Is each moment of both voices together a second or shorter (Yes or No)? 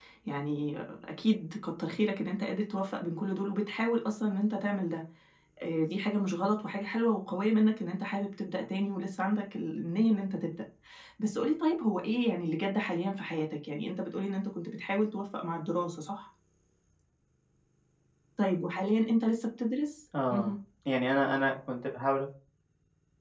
Yes